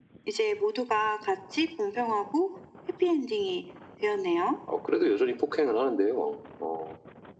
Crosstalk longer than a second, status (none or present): none